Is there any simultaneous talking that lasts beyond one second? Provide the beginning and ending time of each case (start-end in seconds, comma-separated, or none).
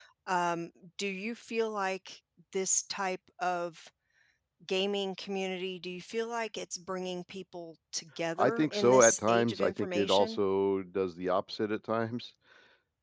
8.4-10.4